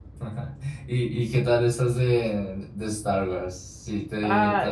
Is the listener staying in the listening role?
No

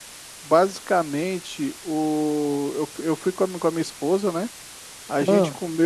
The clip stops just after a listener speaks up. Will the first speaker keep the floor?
Yes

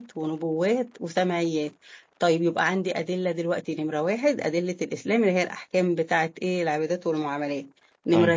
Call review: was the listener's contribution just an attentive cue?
Yes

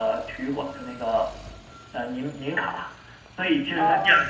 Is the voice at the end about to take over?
No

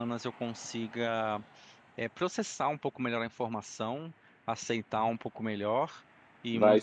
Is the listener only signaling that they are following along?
Yes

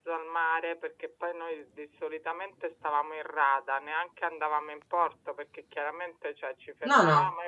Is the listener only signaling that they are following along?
Yes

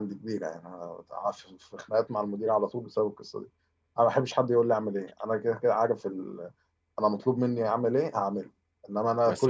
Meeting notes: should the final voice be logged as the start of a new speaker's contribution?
No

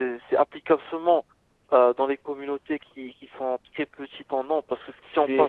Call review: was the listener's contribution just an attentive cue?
No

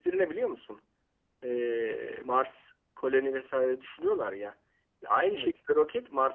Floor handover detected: No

